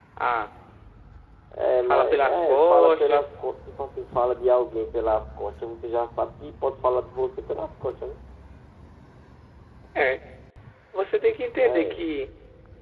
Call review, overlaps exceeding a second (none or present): present